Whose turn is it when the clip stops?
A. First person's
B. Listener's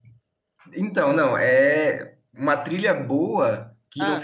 A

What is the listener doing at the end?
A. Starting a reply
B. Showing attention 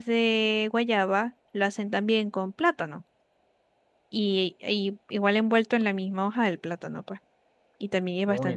A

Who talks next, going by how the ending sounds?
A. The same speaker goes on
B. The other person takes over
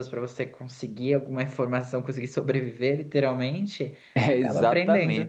B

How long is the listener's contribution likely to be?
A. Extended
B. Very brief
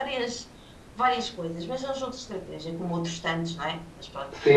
A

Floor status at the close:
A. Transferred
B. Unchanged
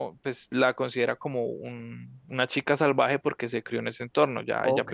A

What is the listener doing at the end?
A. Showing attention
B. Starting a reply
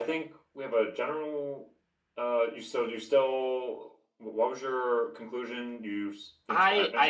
B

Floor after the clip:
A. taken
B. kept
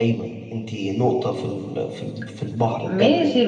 A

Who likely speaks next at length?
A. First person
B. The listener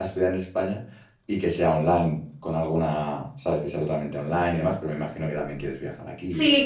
B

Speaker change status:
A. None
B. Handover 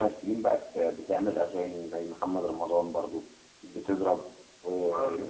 A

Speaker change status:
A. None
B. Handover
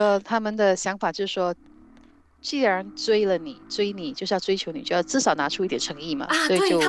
B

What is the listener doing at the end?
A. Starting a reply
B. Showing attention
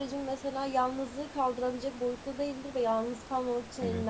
B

